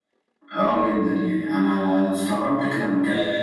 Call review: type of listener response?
taking over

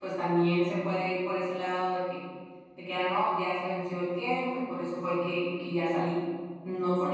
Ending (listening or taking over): taking over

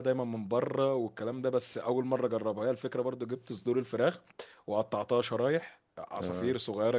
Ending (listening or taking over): listening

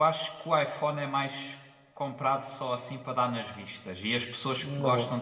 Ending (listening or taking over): listening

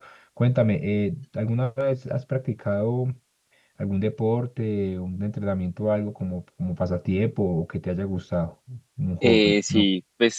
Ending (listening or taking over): taking over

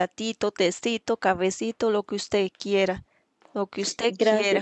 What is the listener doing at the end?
taking over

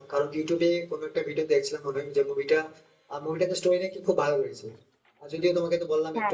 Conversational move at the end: listening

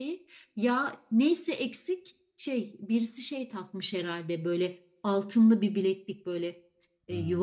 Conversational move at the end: listening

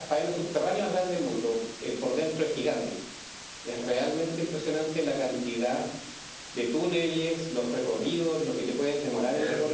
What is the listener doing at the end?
taking over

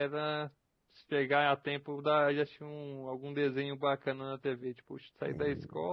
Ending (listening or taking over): listening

